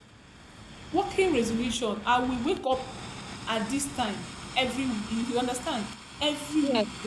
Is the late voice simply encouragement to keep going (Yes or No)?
Yes